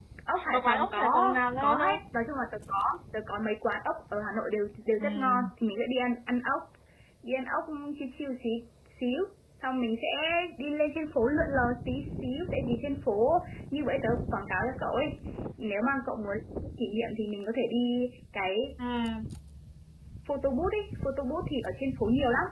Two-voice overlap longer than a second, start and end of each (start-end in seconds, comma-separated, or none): 0.5-2.0